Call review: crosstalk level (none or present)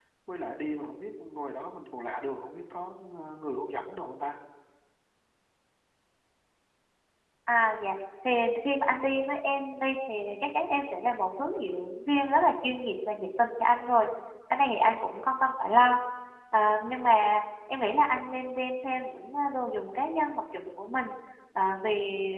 none